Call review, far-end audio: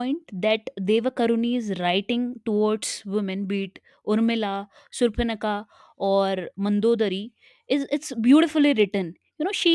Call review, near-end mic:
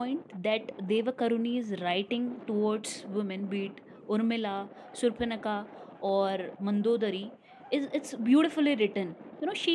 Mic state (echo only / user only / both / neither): echo only